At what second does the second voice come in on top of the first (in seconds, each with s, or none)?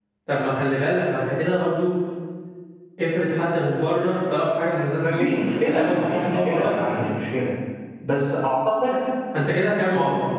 5.0 s